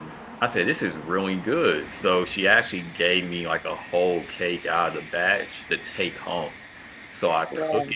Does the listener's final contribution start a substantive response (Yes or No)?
No